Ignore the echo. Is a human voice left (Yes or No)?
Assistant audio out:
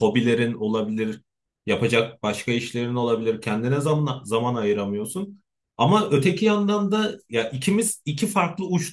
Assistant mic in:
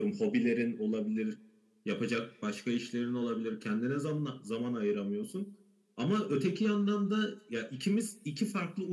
No